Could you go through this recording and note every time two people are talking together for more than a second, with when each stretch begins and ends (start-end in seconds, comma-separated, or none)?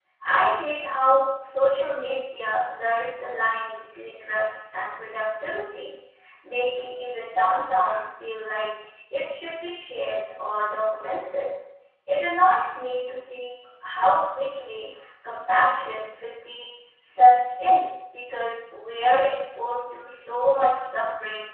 none